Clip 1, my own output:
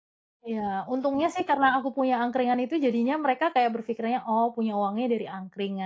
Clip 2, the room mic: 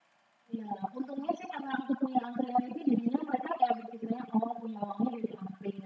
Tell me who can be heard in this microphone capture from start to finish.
echo only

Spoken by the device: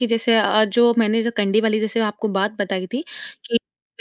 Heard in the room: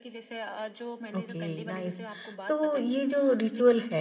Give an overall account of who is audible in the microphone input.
both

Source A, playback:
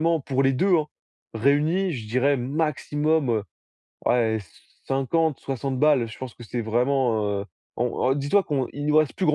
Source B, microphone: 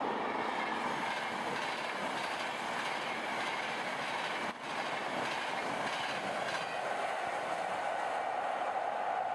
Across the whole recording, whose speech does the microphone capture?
neither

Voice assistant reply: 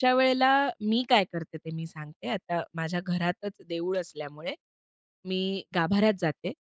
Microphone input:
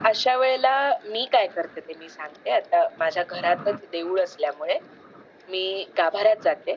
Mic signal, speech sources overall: echo only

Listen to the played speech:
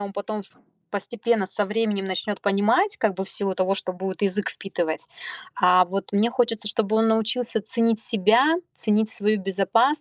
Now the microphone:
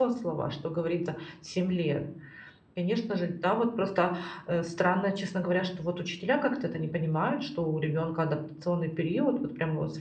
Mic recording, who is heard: user only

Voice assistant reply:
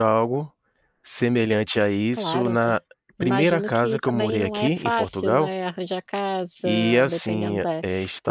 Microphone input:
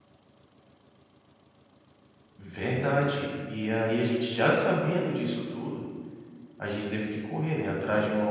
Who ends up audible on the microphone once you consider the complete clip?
user only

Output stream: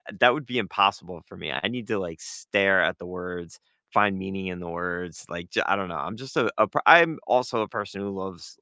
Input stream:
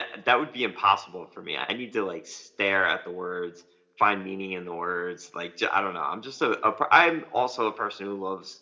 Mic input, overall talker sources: echo only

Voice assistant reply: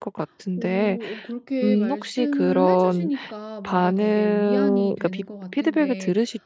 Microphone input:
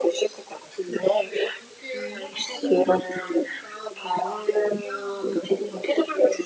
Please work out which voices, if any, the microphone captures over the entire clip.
echo only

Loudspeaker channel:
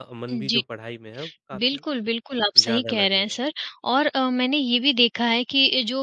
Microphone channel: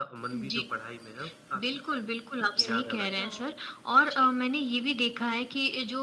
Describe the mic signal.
both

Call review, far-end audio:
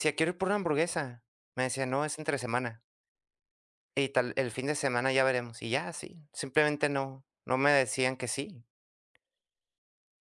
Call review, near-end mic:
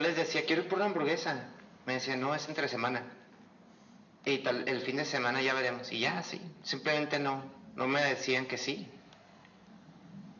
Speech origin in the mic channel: echo only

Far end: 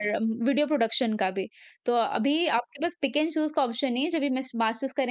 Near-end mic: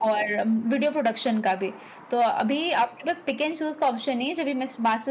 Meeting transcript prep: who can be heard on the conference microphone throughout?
echo only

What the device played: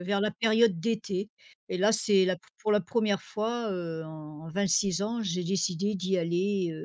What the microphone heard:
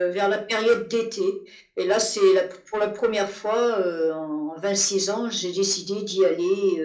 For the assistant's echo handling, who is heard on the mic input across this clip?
echo only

